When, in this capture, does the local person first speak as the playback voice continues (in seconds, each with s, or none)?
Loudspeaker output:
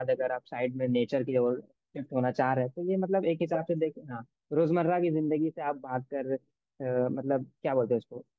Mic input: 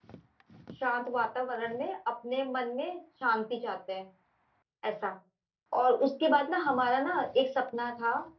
0.8 s